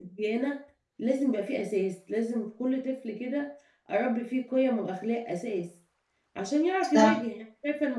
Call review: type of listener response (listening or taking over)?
listening